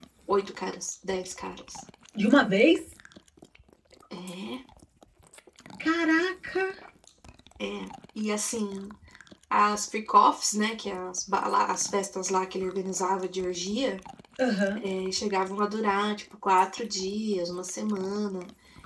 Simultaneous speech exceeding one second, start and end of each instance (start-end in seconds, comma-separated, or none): none